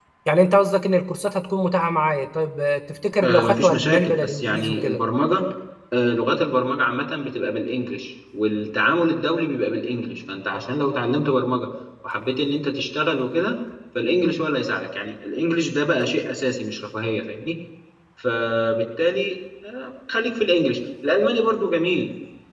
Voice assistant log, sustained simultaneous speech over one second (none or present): present